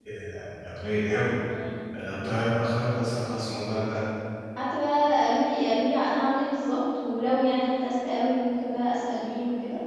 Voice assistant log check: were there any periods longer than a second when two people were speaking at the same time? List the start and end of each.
none

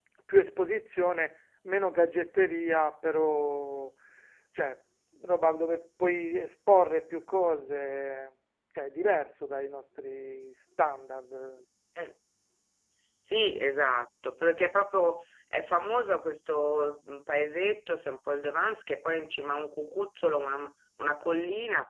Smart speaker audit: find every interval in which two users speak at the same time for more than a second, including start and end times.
none

